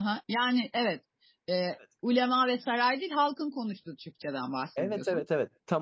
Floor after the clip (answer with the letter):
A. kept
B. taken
B